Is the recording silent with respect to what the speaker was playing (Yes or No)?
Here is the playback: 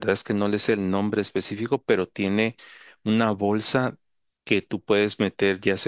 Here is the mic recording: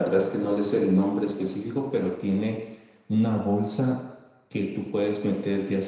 No